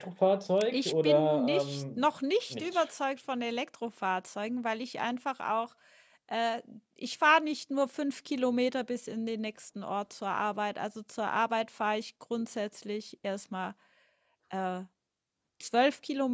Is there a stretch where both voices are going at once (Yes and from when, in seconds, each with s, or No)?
Yes, from 0.7 s